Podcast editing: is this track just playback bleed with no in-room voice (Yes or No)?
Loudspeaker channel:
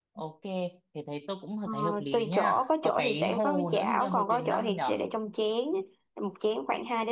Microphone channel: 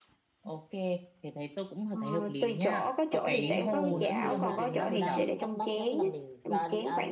No